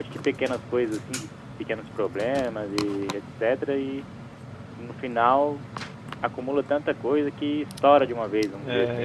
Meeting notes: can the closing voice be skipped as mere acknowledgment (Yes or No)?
No